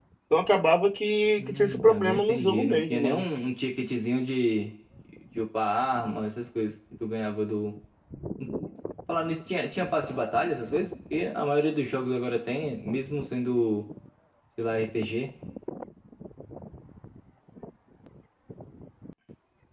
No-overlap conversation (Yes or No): No